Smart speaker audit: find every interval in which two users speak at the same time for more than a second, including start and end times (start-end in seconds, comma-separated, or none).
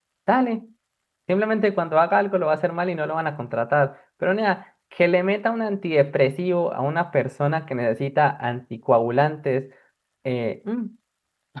none